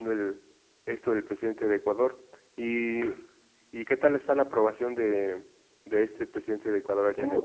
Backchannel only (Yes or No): No